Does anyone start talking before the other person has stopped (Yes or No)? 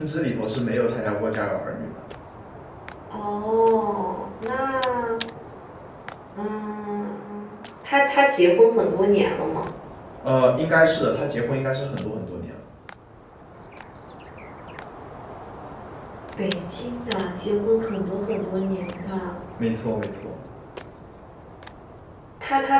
No